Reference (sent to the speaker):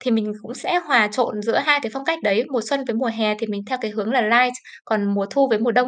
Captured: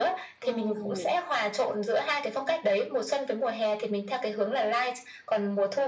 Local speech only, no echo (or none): Ồ!